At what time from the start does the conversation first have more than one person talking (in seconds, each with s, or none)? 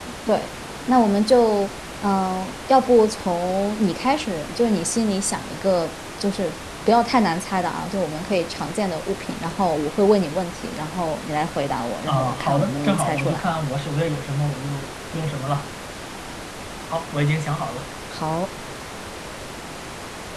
12.1 s